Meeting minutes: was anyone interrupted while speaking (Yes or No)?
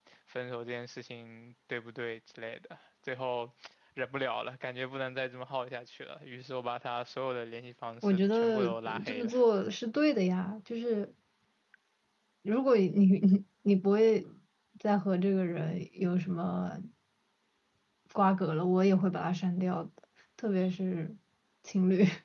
Yes